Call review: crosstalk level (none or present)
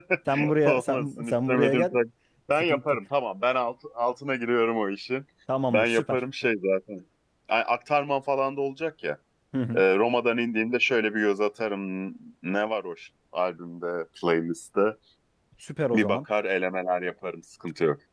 present